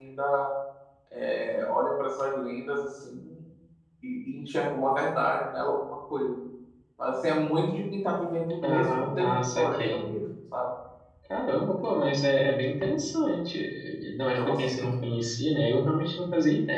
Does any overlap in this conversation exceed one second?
Yes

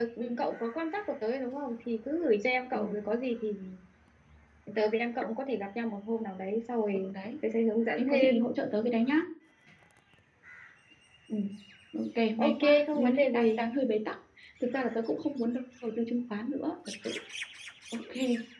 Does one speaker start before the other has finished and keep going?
Yes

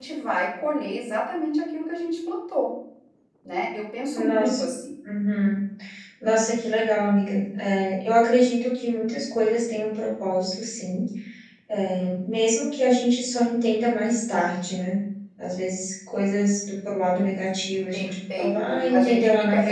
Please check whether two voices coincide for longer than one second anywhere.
Yes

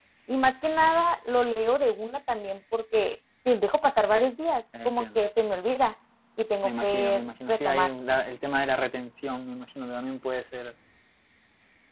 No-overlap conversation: No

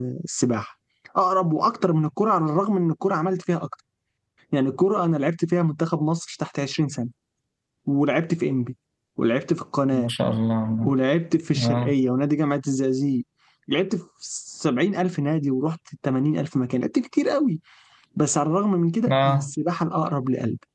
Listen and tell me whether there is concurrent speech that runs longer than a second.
No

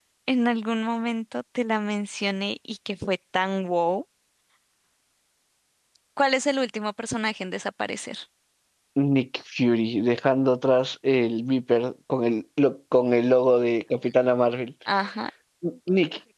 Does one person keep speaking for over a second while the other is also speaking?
No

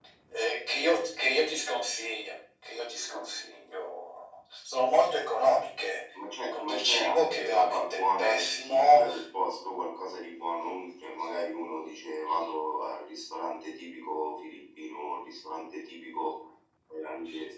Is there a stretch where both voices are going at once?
Yes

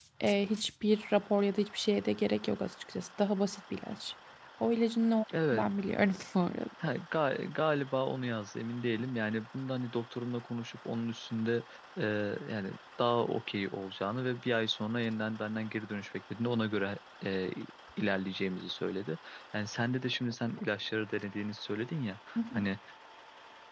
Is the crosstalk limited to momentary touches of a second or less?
Yes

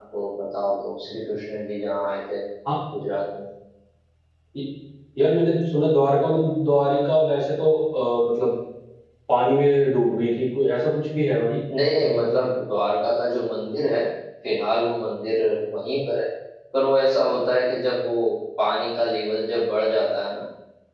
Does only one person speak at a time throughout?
Yes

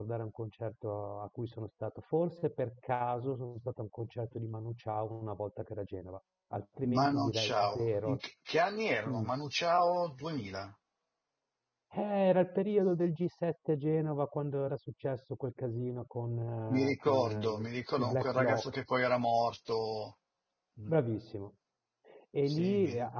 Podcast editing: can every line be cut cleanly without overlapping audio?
No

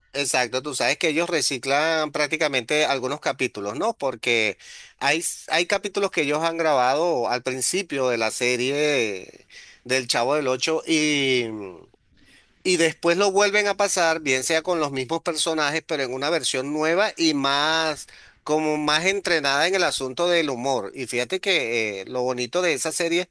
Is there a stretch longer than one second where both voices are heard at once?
No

